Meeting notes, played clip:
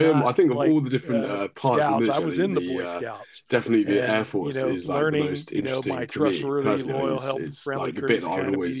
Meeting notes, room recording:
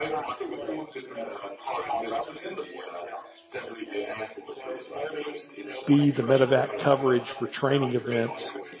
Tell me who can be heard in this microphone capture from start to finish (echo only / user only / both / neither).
both